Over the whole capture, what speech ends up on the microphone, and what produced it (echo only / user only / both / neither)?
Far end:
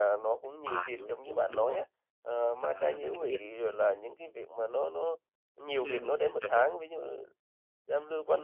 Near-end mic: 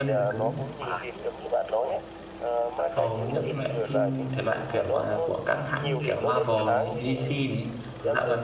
both